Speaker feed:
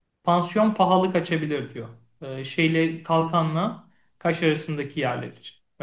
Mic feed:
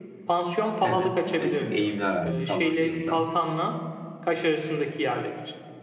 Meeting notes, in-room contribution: present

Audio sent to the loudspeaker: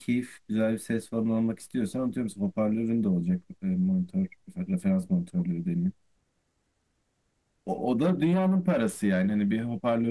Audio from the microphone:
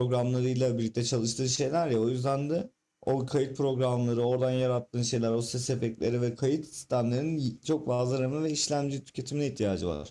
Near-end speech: present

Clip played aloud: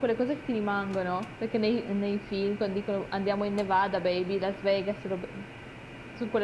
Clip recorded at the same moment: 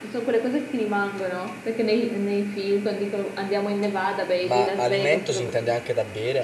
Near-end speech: present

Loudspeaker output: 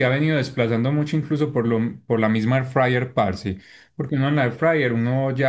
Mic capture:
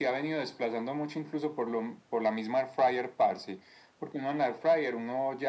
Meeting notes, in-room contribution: none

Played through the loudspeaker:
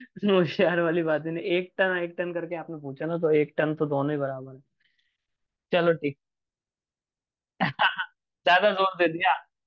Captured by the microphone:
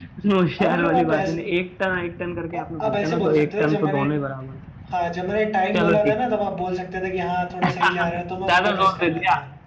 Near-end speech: present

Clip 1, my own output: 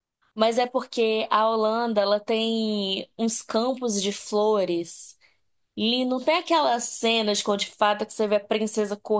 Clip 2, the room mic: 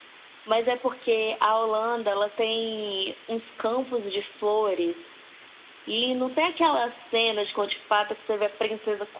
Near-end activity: none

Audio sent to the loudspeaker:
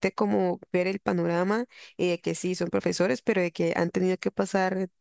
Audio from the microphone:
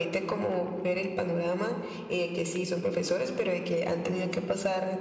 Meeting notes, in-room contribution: none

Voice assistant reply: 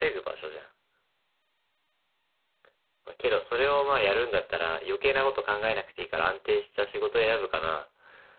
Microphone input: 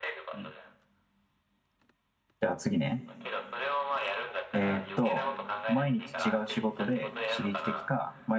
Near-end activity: present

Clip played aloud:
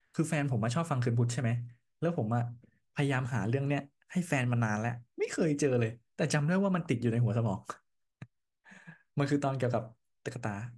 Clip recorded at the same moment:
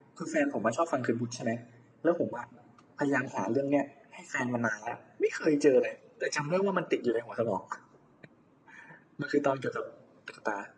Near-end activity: none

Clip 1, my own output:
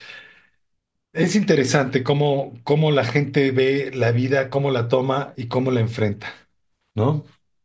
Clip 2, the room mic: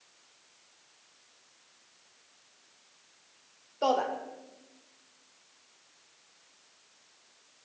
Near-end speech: present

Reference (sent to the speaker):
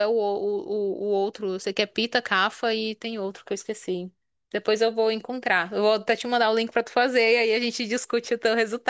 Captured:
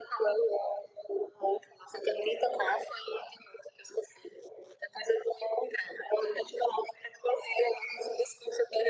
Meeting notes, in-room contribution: none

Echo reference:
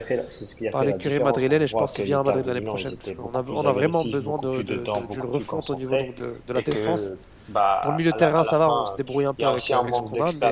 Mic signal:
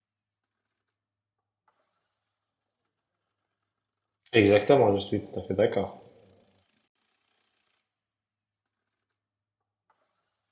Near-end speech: present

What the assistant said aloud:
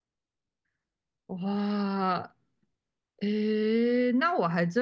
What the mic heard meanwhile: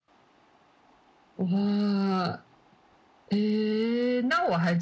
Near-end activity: none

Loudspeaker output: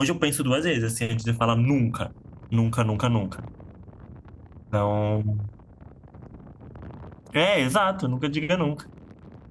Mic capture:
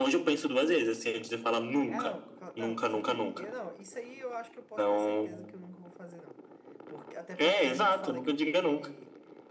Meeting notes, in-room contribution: present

